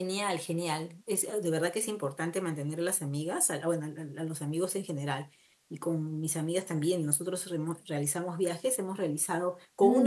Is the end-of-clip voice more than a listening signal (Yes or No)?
No